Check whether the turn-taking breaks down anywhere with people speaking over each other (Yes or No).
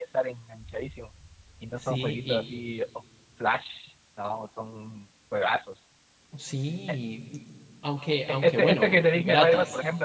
Yes